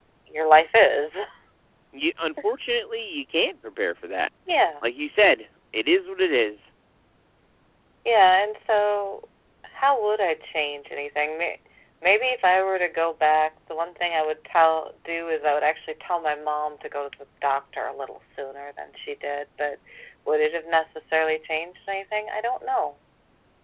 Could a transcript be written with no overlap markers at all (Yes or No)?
Yes